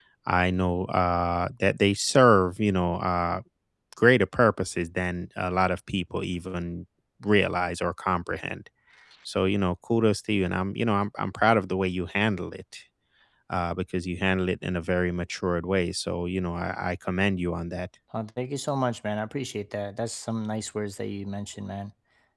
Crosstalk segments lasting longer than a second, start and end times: none

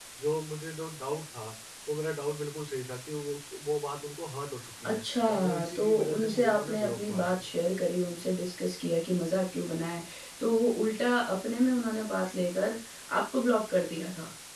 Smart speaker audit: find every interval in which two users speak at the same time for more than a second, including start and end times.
4.8-7.5

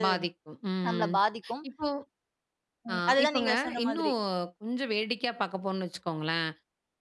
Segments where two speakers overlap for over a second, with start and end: 2.9-4.1

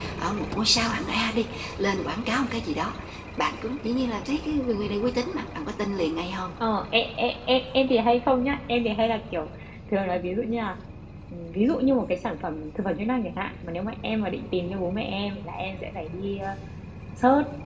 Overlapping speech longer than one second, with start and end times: none

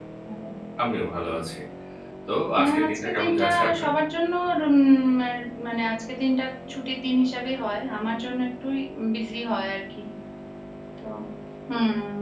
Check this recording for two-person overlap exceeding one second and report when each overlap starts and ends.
2.6-3.9

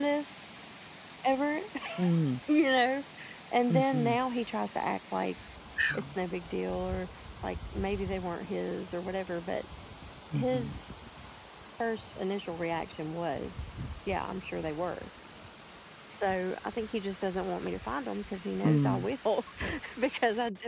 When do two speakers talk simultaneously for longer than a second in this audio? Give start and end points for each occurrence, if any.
none

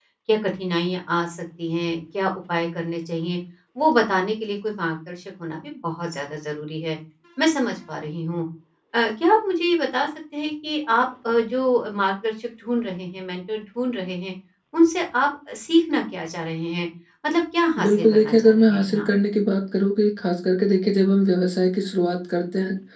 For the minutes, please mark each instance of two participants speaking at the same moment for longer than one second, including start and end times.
17.8-19.1

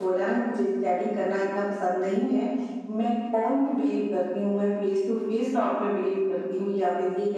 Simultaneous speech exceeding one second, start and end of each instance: none

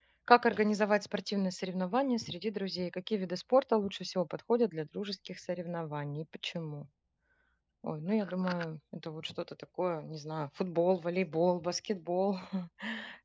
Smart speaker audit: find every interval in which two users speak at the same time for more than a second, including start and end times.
none

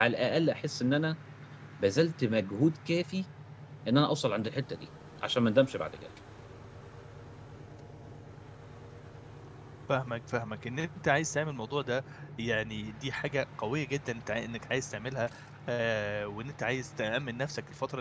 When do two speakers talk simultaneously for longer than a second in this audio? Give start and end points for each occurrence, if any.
none

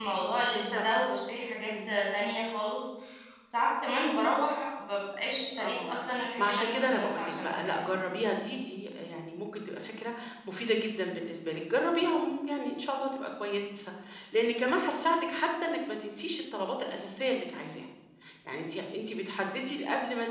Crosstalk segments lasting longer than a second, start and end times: 6.4-8.0

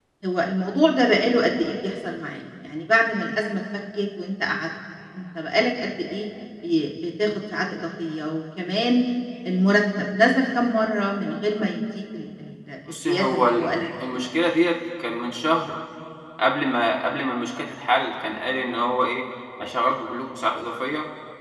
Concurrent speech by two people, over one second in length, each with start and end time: 12.9-14.2

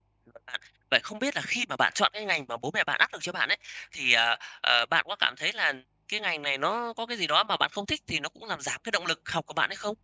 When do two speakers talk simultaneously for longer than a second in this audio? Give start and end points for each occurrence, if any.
none

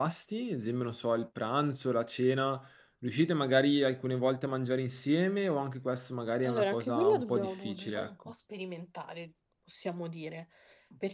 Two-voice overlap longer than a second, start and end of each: 6.4-8.1

